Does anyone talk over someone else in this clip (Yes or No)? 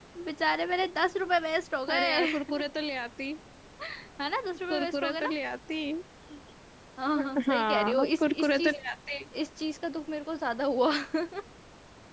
Yes